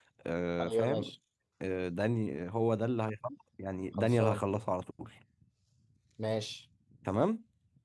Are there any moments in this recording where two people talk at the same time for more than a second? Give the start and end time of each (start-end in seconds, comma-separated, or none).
none